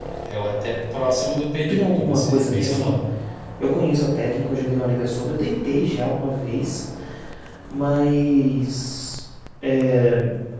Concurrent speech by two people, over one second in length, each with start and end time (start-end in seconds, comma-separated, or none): 1.7-2.9